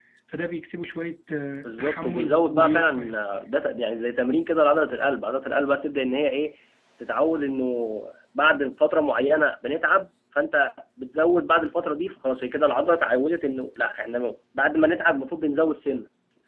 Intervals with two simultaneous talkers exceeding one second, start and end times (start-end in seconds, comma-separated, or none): 1.6-3.2